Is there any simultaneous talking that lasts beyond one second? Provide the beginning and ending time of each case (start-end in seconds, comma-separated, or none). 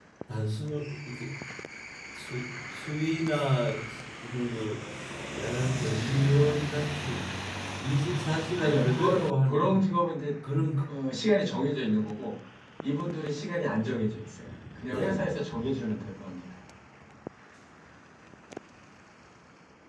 8.6-9.8